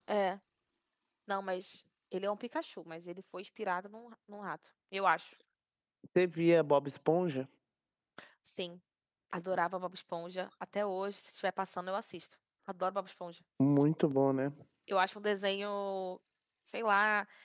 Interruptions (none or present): none